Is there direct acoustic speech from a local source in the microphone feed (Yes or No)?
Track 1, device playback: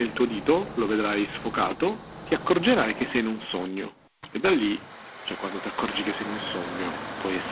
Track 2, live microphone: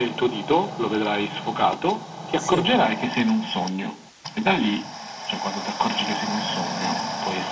Yes